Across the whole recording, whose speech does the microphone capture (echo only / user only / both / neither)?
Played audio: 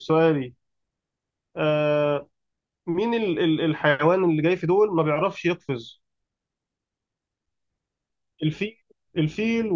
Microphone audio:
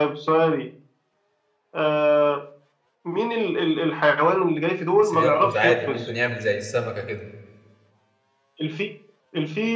both